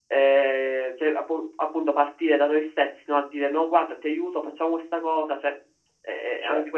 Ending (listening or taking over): taking over